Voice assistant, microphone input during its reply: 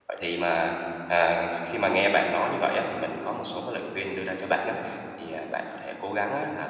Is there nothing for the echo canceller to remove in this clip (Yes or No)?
Yes